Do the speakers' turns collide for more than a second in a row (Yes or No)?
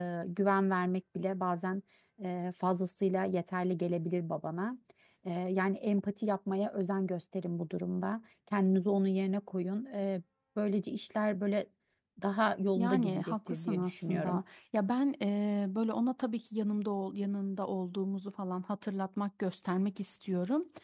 Yes